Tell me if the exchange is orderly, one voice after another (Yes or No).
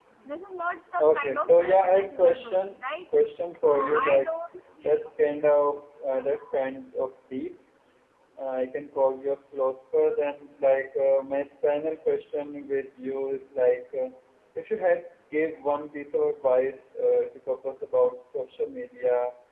No